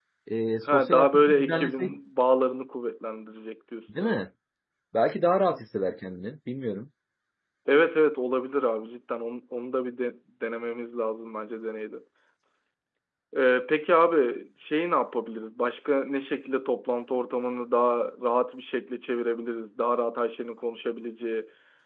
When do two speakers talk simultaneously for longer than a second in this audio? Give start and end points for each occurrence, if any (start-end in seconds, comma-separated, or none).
0.7-1.9